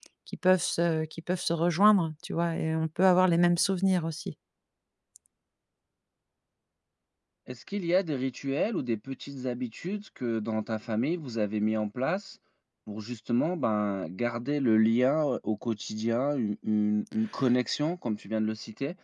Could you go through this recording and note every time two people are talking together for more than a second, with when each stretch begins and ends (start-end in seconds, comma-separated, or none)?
none